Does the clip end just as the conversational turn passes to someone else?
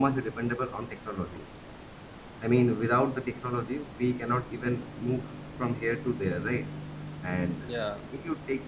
No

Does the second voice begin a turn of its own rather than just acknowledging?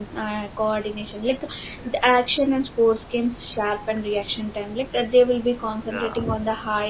No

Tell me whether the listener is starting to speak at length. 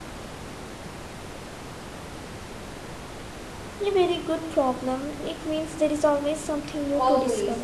Yes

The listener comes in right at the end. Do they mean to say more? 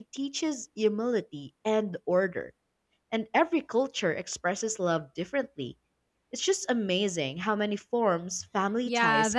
Yes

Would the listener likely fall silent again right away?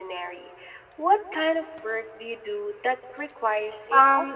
No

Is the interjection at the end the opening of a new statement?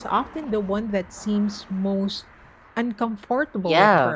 Yes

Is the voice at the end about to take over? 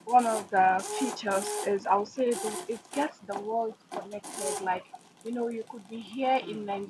No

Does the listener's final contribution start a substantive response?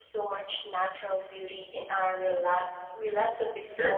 Yes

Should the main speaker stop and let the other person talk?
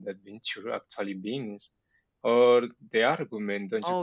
Yes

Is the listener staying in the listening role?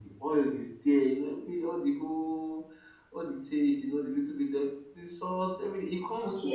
No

